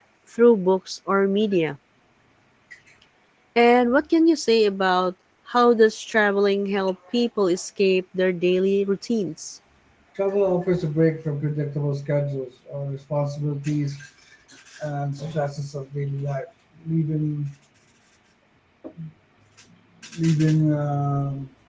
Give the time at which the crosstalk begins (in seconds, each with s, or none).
none